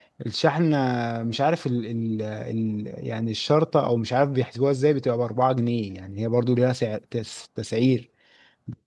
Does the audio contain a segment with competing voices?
No

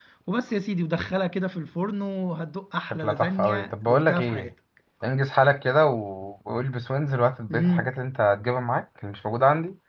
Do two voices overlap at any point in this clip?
Yes, from 2.9 s

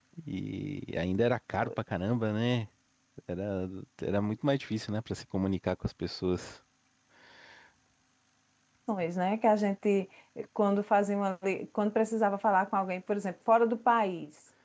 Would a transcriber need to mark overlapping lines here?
No

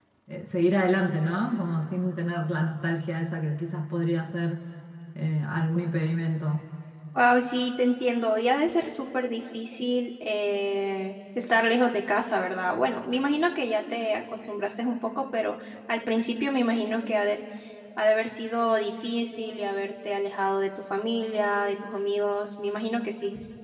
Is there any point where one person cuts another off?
No

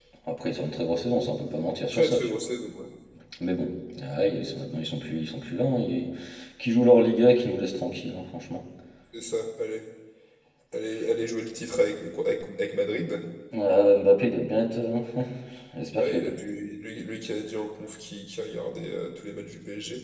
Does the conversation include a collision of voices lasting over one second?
No

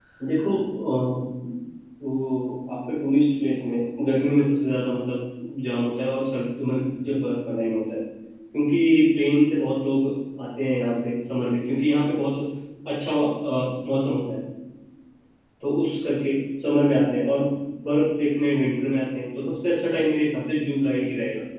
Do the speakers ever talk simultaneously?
No

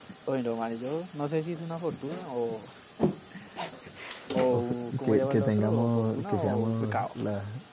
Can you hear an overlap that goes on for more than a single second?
Yes, from 5.0 s

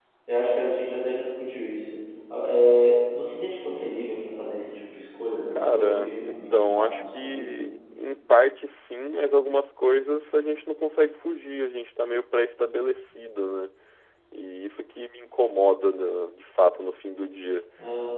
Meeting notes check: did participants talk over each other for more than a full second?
Yes, from 5.5 s

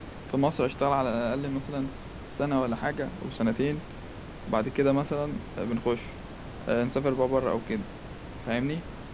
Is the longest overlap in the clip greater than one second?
No

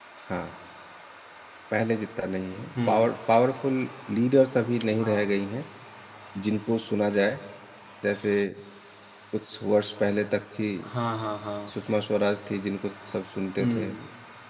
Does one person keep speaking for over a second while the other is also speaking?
No

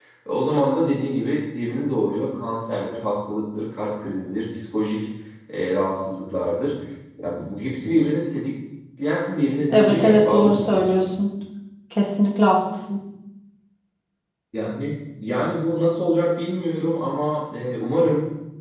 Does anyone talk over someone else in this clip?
Yes, from 9.7 s

